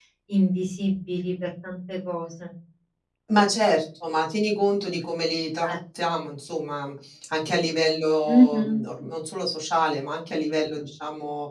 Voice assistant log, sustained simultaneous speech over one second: none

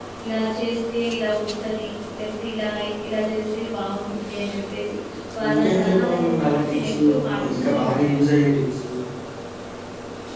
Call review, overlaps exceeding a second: present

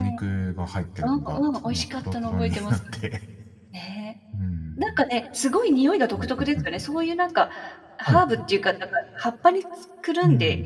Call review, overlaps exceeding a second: present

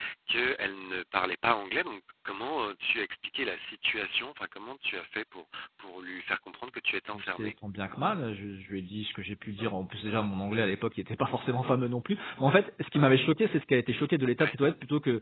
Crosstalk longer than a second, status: none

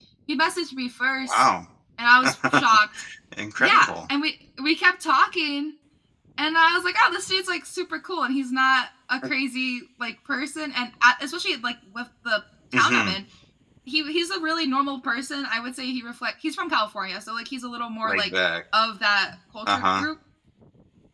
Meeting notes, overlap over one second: none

